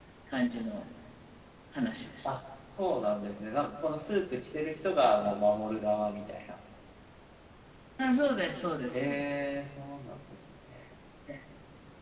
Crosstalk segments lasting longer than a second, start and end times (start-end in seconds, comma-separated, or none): none